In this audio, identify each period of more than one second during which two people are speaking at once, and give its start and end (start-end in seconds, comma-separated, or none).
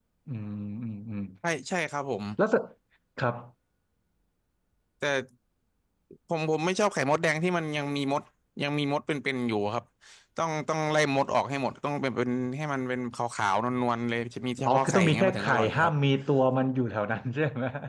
14.7-15.9